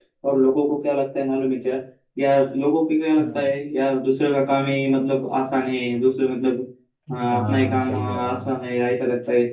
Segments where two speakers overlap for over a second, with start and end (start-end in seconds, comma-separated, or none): 7.3-8.6